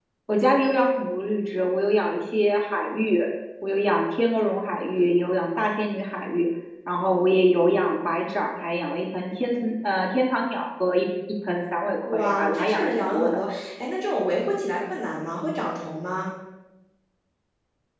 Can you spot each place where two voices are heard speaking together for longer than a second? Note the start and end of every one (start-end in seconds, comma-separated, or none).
12.1-13.4